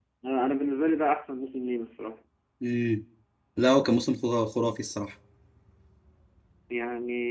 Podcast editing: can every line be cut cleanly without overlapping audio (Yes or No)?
Yes